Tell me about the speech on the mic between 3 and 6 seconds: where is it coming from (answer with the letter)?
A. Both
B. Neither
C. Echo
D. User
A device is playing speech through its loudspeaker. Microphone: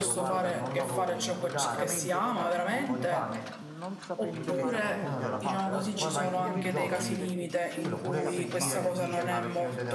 A